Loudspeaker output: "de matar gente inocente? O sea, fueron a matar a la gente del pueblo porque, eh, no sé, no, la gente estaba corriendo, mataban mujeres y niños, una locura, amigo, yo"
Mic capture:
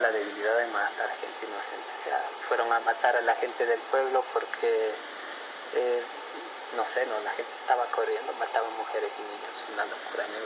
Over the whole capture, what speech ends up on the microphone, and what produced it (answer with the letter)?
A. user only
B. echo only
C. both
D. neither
B